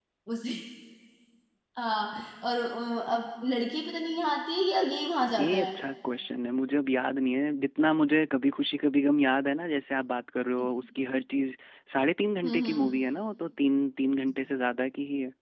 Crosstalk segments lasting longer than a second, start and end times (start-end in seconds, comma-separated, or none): none